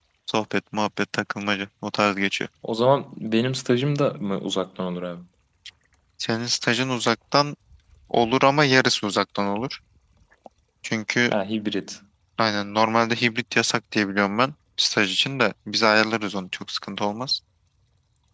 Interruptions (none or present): none